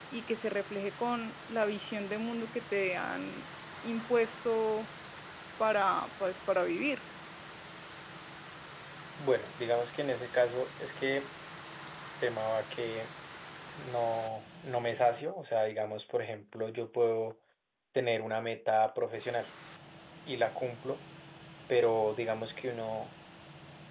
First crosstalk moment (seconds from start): none

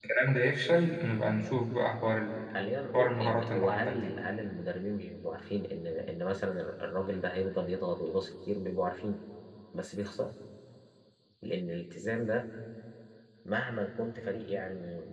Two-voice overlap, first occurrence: 2.9 s

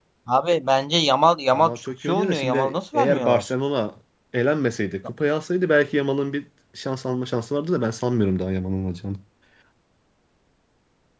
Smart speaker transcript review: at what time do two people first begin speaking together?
1.5 s

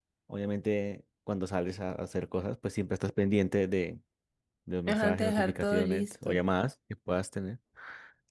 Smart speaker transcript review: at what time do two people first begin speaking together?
4.9 s

